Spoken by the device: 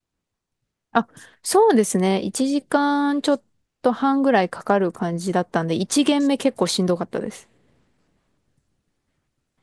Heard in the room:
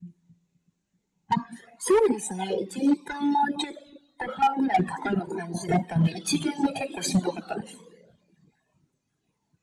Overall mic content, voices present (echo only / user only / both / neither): echo only